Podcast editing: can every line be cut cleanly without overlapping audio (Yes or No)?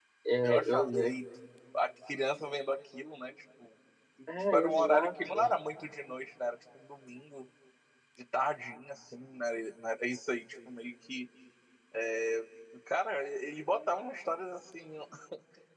No